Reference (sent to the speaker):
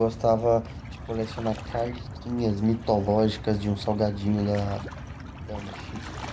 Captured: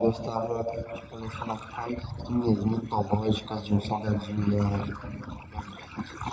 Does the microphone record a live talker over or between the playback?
No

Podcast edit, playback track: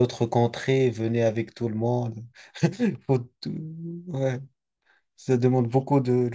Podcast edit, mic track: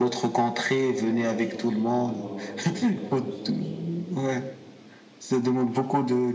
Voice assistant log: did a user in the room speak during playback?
Yes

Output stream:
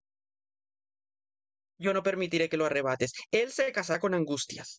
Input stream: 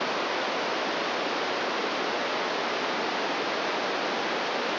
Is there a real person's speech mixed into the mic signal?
No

